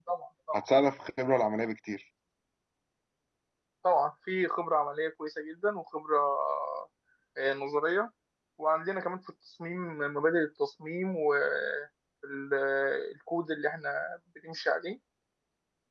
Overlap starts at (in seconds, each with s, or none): none